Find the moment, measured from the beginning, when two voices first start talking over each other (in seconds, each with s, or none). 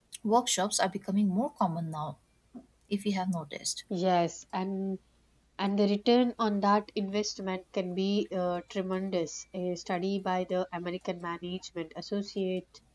none